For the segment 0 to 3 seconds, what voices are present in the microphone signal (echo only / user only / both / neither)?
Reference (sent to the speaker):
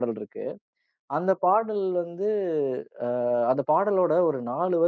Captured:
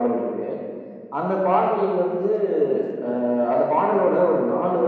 echo only